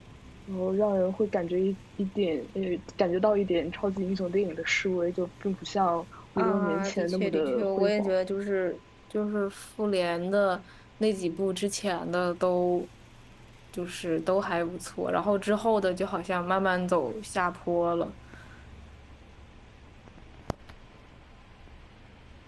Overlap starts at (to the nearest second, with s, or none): 6 s